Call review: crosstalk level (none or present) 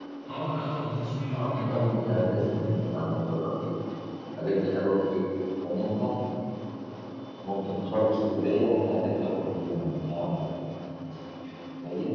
present